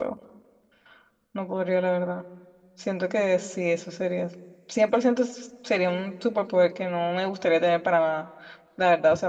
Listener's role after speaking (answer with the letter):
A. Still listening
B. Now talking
A